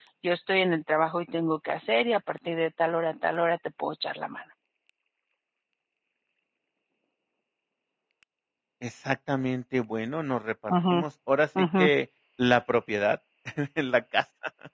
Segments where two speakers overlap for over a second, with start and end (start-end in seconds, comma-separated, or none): none